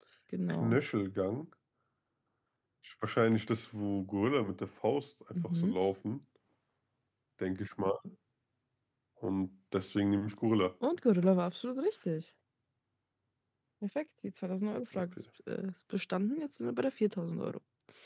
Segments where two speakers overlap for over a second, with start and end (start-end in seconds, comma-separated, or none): none